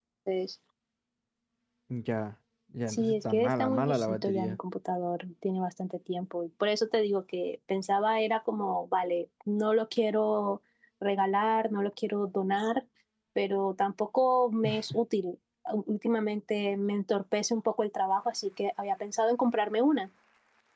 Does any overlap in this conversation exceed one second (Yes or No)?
Yes